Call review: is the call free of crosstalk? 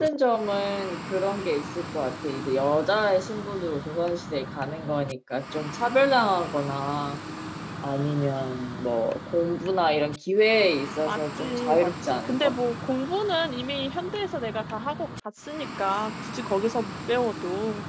No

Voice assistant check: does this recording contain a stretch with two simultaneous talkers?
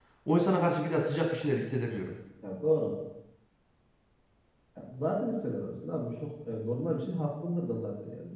No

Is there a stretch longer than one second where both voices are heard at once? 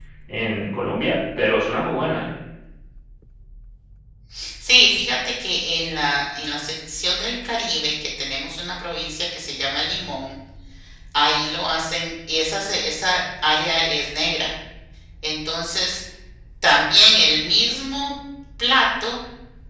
No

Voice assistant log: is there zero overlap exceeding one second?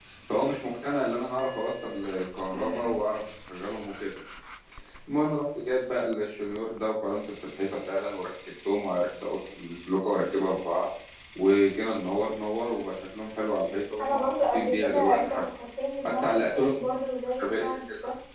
No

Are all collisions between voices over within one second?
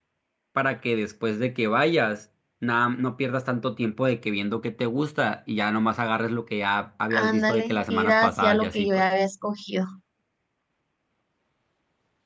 No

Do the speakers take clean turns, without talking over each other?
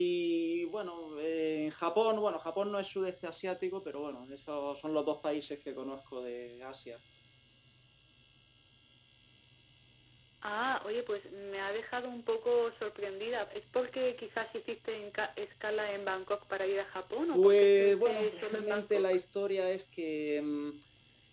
No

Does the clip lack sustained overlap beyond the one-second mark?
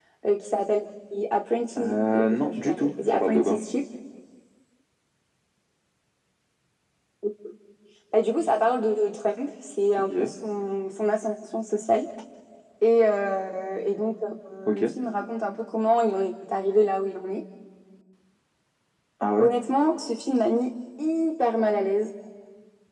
No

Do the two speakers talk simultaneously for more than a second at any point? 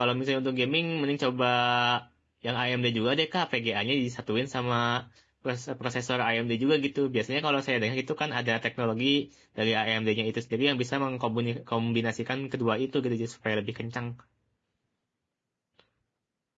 No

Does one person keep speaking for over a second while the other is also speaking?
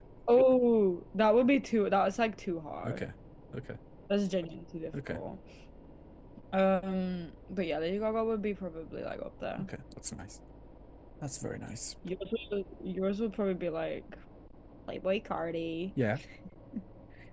No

